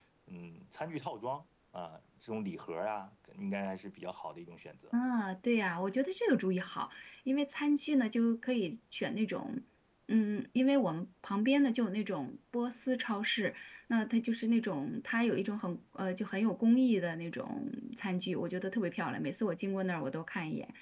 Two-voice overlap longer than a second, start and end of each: none

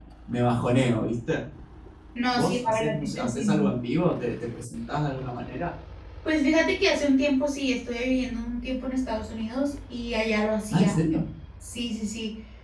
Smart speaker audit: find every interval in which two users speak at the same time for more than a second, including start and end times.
2.3-3.7

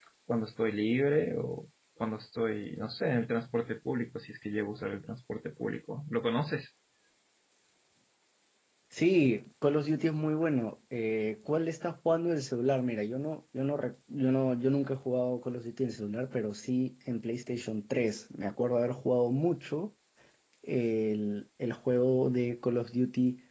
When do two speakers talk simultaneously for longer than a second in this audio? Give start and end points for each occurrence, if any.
none

